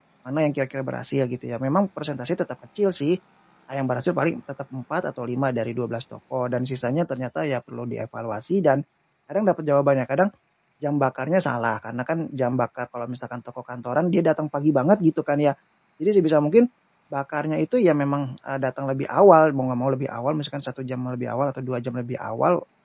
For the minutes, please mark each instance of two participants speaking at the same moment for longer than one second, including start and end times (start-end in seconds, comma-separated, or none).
none